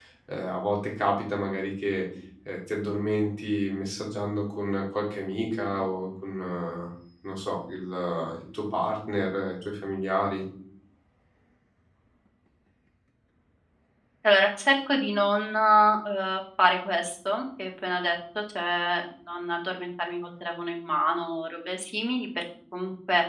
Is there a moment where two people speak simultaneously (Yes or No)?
No